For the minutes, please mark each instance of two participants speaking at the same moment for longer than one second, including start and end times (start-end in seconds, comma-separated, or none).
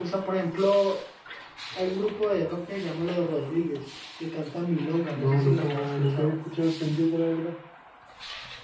5.1-6.4